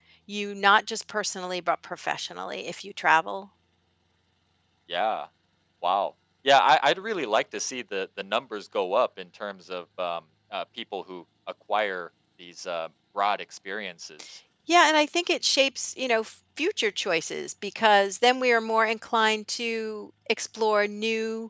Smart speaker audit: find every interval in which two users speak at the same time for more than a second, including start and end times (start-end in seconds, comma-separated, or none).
none